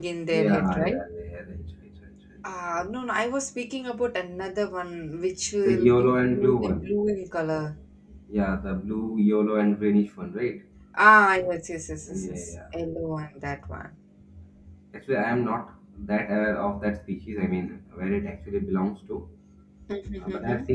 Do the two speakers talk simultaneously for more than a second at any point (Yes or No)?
Yes